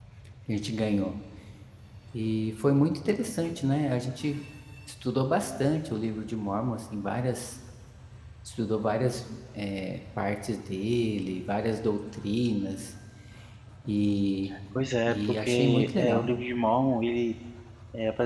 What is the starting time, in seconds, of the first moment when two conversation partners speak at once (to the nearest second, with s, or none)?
15 s